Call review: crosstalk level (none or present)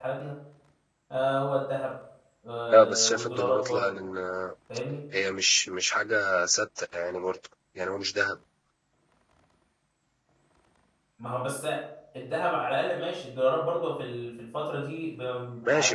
present